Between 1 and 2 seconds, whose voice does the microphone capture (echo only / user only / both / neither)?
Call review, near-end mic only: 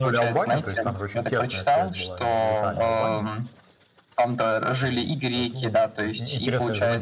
both